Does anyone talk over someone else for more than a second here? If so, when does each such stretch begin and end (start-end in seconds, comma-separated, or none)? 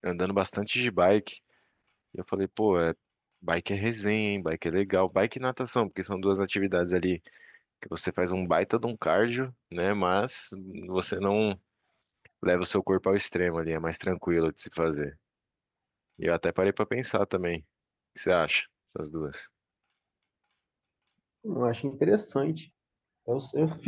none